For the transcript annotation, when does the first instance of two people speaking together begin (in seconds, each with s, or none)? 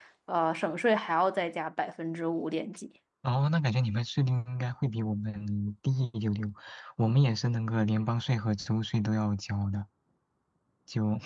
none